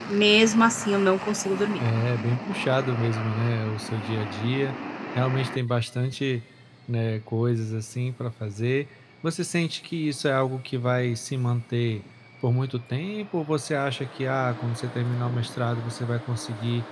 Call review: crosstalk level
none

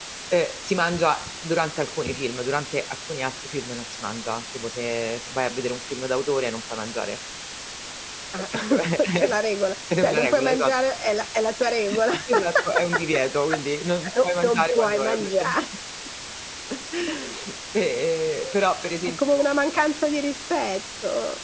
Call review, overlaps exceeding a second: present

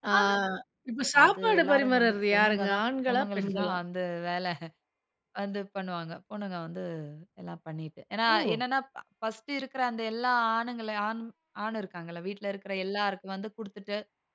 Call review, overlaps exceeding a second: present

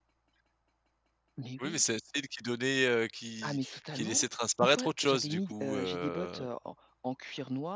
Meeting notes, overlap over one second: present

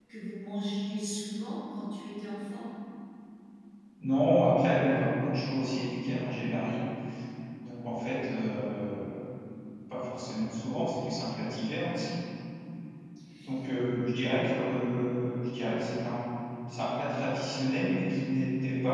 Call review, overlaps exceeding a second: none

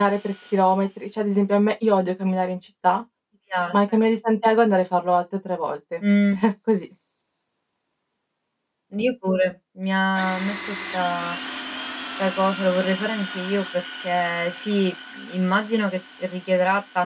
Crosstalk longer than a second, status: none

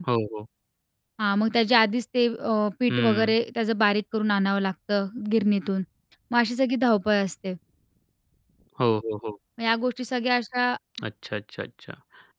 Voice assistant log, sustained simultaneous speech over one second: none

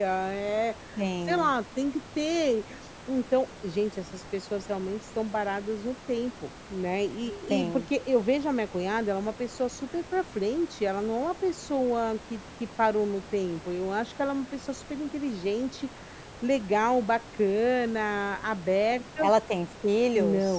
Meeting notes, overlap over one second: none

